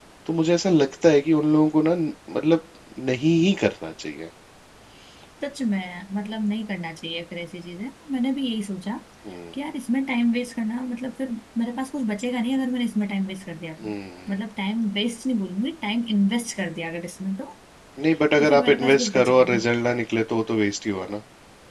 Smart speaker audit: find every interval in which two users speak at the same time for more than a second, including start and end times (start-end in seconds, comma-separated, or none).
18.4-19.6